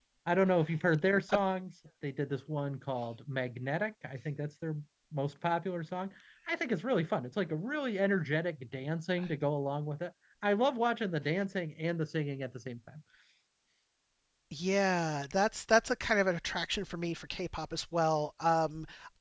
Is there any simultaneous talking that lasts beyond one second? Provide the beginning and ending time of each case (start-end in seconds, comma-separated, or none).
none